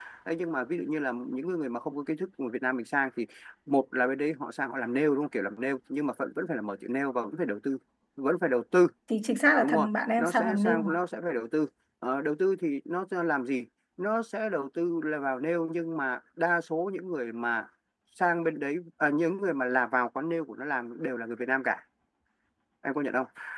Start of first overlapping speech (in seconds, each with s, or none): 9.6 s